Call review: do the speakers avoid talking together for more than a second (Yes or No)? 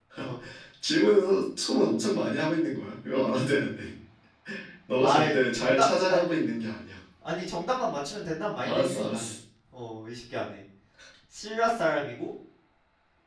No